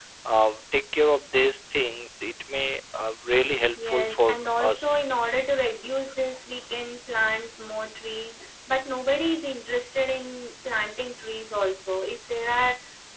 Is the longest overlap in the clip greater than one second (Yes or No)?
Yes